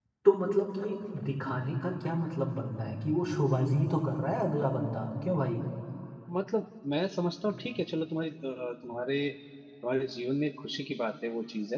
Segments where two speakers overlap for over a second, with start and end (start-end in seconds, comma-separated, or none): none